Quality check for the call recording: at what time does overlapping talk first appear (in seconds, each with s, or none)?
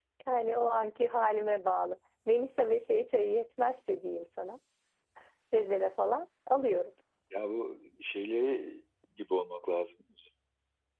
none